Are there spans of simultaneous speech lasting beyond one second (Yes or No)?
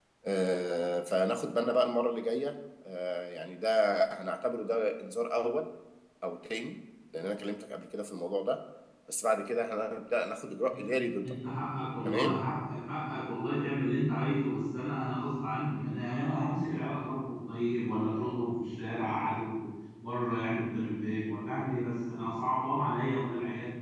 No